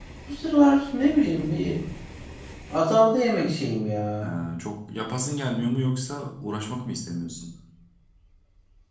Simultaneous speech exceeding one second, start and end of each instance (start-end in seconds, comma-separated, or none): none